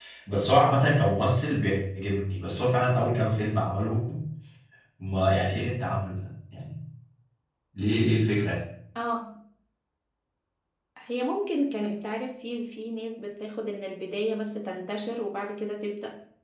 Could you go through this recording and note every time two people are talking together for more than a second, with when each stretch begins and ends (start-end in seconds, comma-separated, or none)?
none